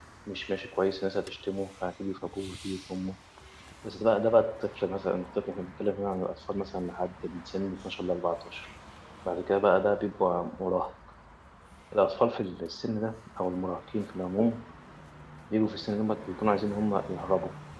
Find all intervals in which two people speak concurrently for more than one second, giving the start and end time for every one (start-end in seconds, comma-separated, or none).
none